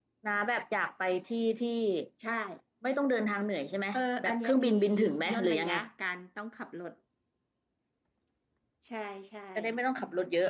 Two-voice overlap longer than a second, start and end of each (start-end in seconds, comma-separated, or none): 3.9-5.7